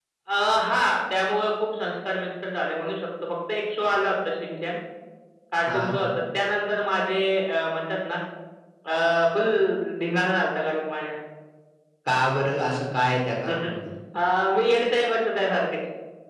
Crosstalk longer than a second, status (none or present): none